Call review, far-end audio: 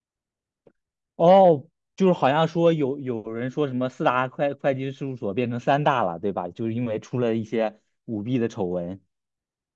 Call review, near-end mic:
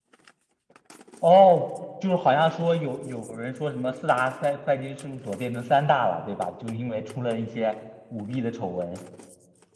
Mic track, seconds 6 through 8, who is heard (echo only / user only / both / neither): echo only